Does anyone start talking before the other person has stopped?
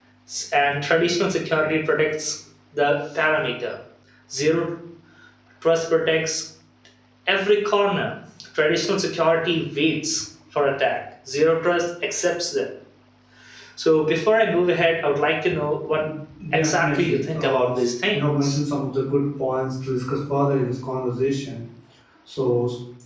Yes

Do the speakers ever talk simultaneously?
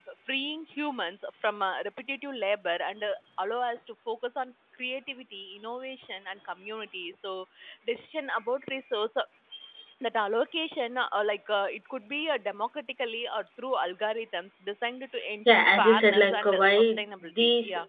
Yes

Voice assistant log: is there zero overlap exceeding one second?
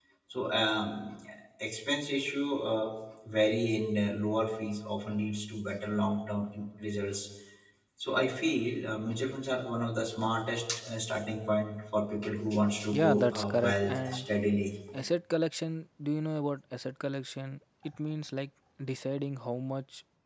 No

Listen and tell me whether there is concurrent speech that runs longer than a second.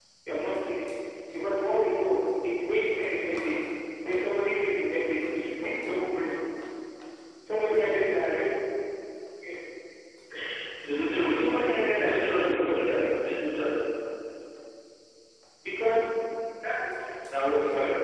Yes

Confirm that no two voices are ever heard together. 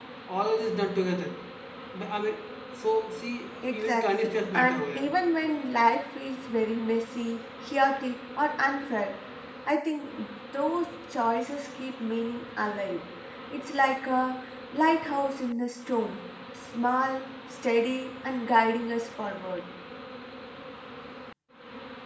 No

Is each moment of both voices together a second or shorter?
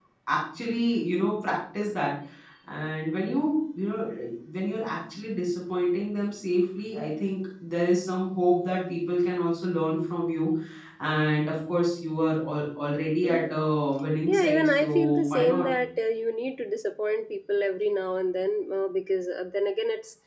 No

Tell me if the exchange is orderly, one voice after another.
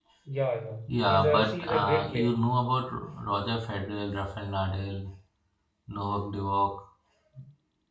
No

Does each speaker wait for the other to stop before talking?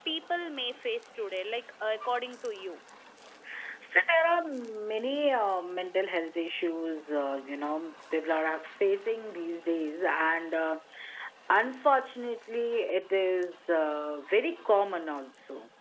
Yes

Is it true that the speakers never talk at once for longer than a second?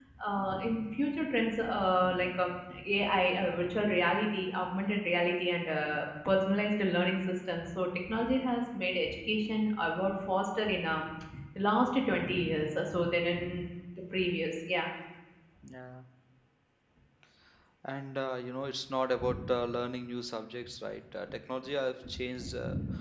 Yes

